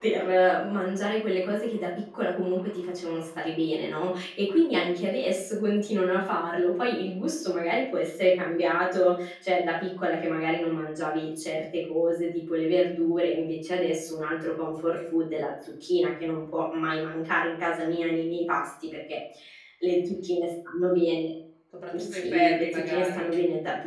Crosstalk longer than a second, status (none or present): present